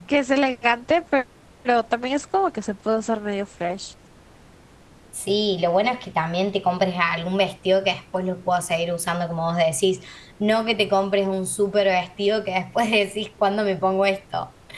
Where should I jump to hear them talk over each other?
none

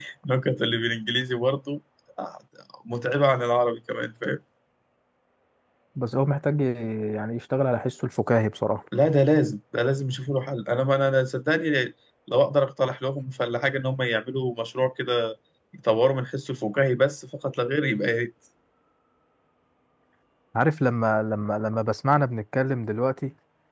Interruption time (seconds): none

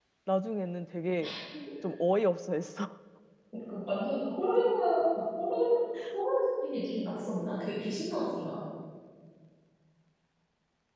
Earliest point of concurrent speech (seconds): none

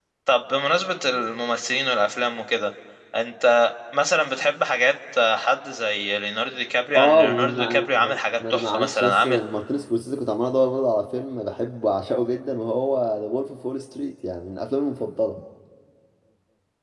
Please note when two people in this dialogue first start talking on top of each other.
7.0 s

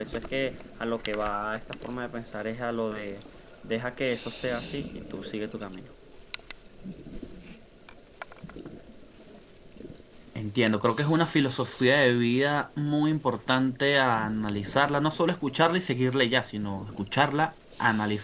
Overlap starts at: none

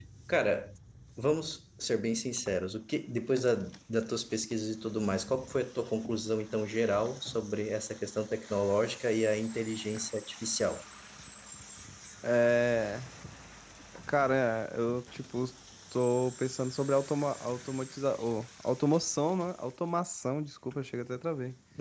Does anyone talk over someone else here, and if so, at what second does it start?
none

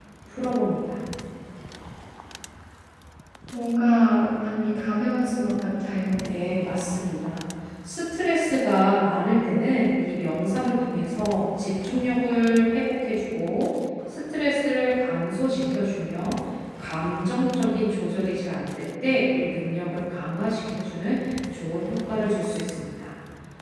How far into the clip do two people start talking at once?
none

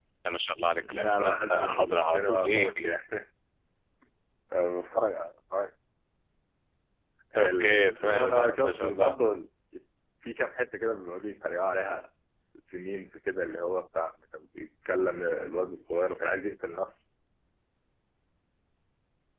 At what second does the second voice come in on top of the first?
0.7 s

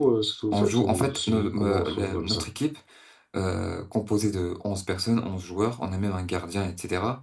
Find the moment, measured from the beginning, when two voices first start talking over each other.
0.5 s

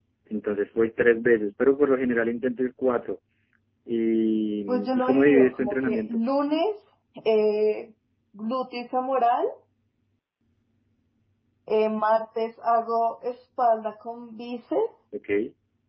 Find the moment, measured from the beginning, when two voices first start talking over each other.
4.7 s

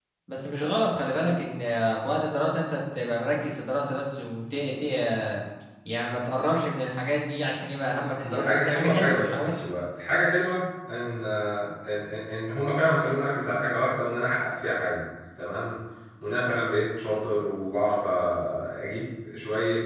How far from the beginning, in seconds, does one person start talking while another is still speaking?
8.2 s

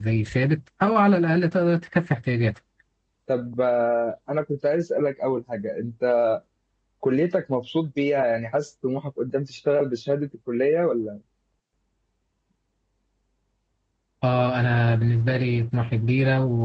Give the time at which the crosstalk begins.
none

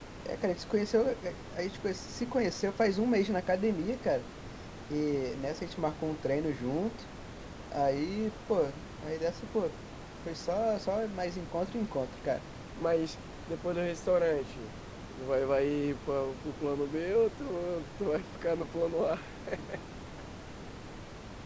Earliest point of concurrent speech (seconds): none

